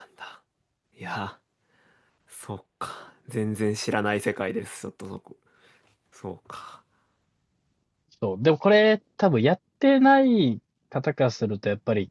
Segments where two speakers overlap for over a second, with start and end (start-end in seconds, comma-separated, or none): none